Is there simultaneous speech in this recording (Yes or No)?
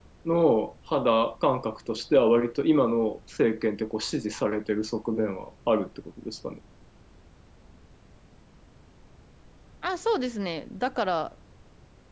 No